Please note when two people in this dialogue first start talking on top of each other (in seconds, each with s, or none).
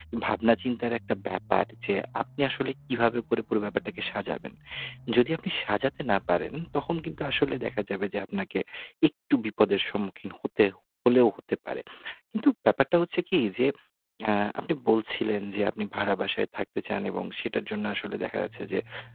none